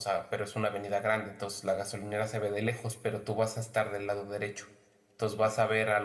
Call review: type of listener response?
listening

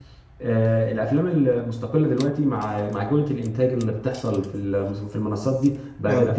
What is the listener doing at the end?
listening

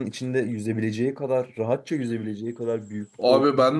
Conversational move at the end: taking over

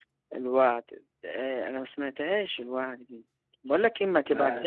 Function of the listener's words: listening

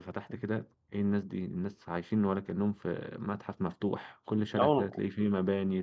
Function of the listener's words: listening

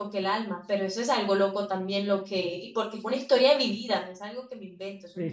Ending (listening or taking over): taking over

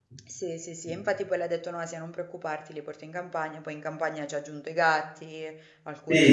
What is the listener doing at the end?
taking over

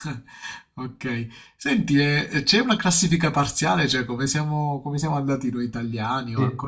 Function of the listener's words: taking over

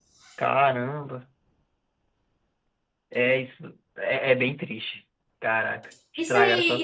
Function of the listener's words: taking over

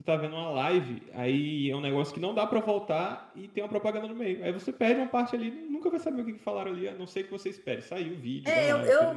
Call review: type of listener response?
taking over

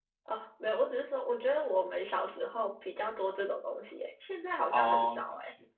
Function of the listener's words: taking over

